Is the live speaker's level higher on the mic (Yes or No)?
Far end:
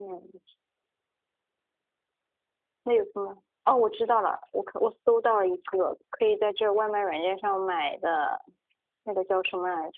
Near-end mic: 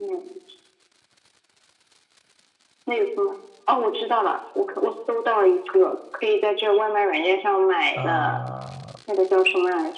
No